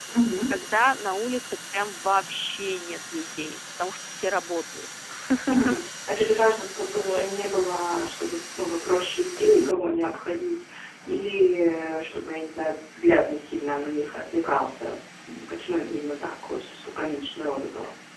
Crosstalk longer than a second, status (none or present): none